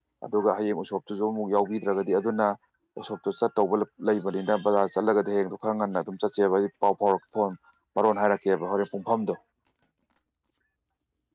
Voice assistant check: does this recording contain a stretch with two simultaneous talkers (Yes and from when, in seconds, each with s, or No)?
No